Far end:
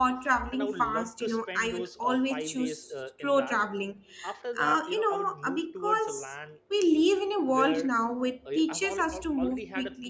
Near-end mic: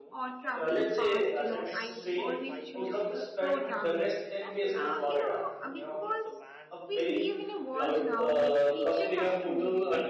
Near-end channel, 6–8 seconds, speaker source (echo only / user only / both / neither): both